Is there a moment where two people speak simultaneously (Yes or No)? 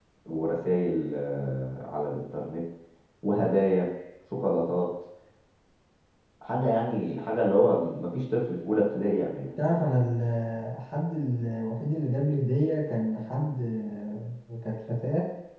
No